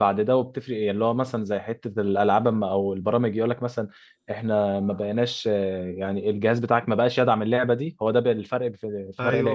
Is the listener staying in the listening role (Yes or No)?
No